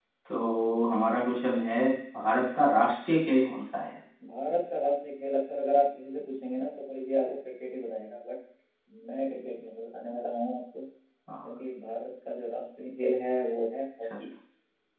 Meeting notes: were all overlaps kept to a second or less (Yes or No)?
Yes